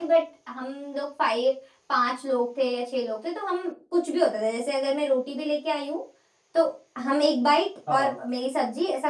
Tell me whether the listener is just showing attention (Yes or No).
Yes